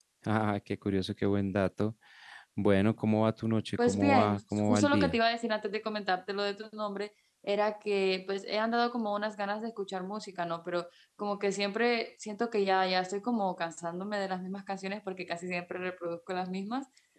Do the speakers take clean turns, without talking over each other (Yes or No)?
No